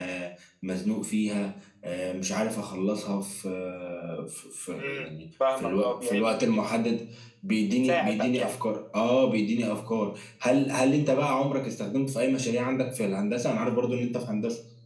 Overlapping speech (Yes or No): Yes